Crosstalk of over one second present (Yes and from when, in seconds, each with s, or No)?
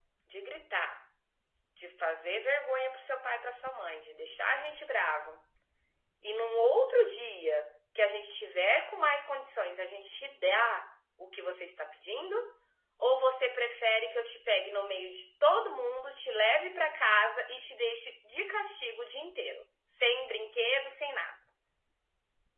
No